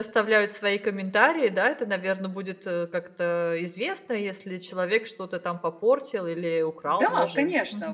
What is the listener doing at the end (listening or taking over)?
taking over